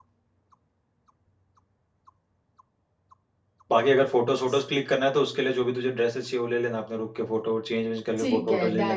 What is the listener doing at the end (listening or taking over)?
taking over